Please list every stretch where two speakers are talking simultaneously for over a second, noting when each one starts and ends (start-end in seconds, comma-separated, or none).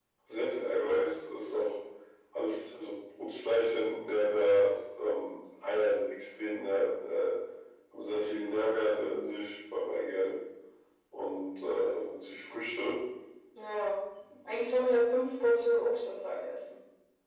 none